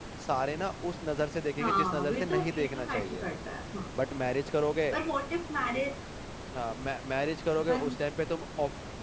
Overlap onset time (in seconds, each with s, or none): 1.6 s